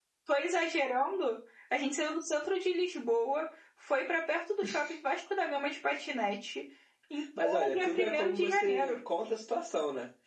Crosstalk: present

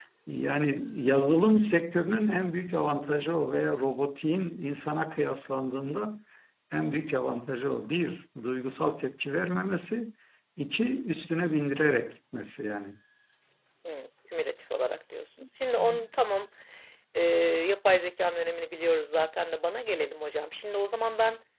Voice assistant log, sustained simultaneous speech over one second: none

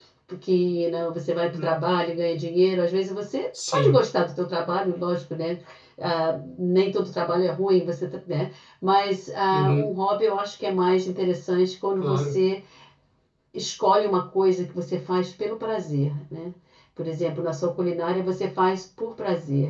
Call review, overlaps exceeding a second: none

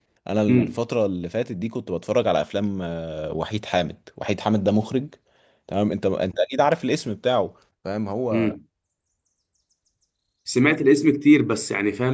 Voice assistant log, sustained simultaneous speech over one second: none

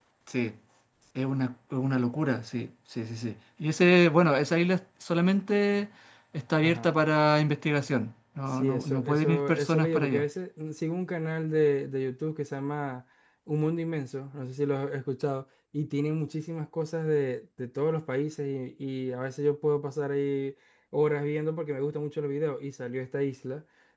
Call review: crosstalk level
present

